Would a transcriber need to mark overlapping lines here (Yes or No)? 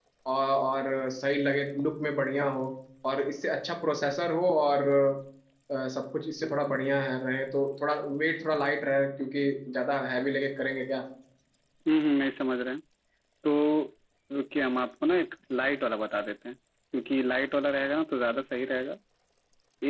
No